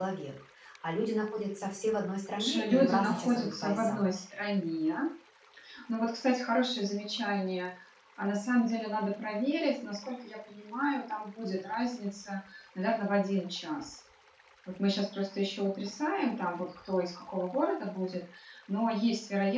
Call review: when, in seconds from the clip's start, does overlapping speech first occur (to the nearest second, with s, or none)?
2 s